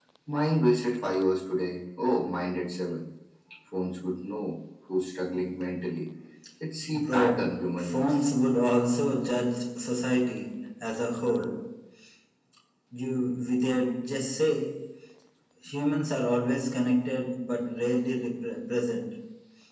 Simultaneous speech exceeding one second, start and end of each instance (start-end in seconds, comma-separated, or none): 6.9-8.2